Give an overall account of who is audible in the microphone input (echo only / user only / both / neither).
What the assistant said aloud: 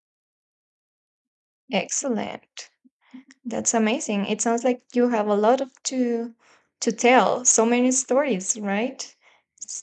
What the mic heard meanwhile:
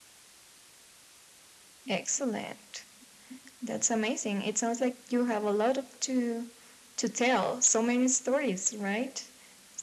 echo only